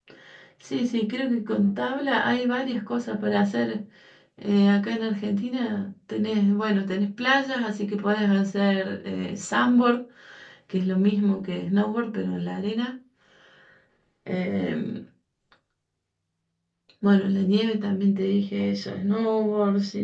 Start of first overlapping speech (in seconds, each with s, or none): none